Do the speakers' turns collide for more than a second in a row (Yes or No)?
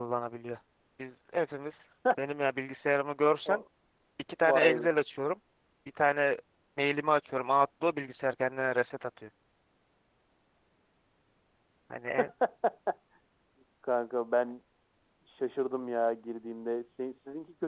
No